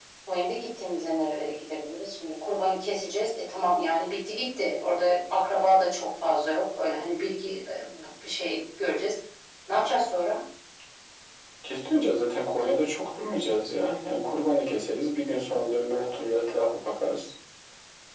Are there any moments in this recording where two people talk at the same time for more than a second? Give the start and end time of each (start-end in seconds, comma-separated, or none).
none